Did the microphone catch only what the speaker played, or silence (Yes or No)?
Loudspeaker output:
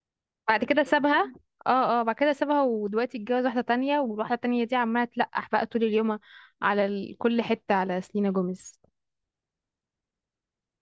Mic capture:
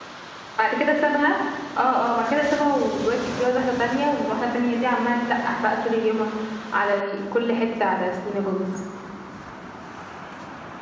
Yes